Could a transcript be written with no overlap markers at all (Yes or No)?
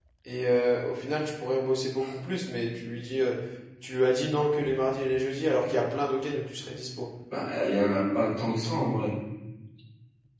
Yes